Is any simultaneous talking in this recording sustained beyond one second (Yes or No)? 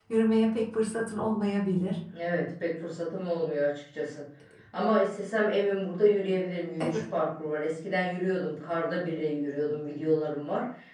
No